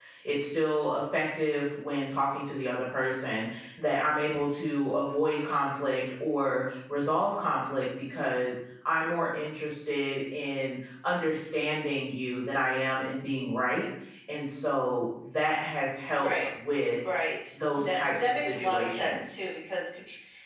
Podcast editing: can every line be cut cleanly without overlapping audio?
No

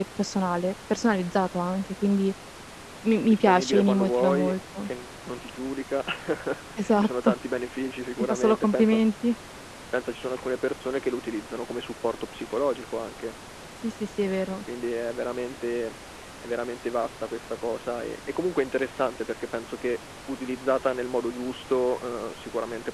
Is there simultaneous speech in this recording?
Yes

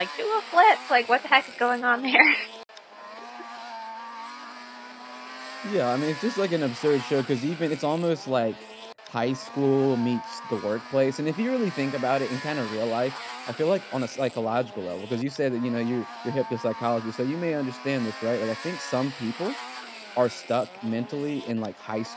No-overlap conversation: Yes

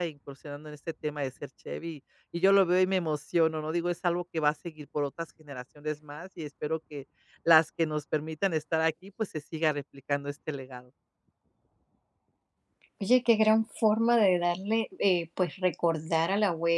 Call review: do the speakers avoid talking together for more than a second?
Yes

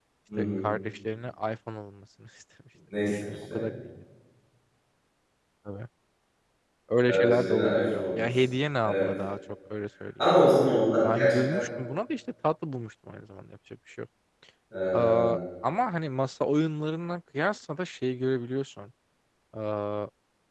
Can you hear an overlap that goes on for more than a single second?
Yes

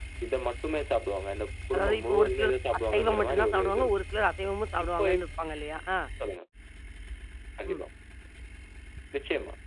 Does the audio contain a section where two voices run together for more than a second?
Yes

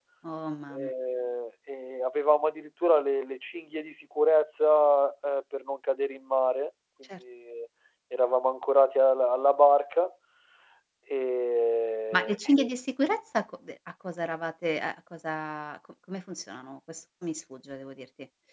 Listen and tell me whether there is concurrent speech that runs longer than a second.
No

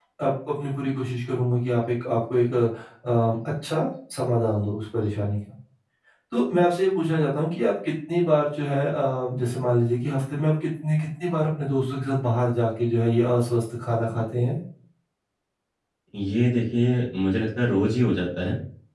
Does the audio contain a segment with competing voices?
No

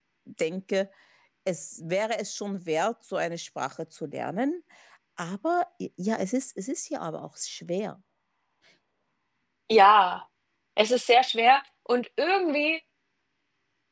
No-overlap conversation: Yes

